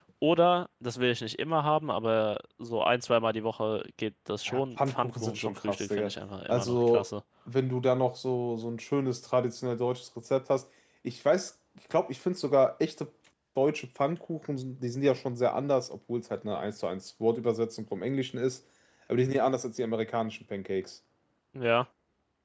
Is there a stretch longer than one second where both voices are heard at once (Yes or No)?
Yes